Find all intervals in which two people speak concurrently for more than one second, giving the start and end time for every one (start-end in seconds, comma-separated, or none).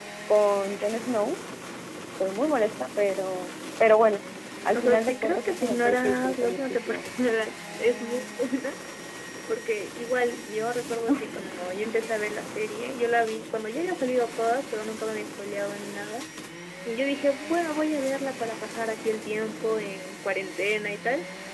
4.7-7.1